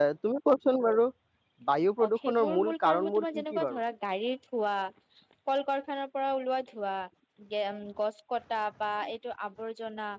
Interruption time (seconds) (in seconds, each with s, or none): 2.0 s